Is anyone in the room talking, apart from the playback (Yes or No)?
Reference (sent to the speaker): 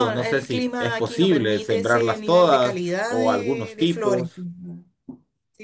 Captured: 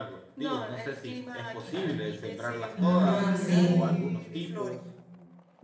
Yes